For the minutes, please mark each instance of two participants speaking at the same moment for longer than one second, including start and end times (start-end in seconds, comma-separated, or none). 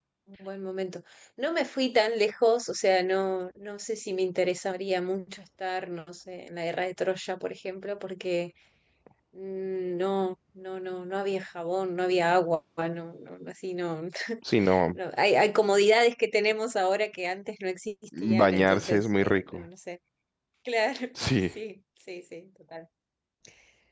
18.4-19.6